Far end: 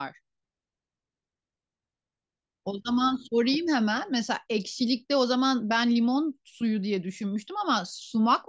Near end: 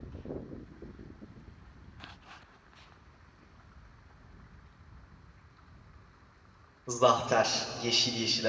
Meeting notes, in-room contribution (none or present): present